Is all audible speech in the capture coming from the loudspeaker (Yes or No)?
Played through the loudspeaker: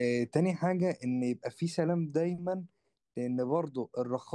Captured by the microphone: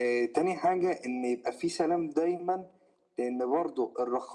Yes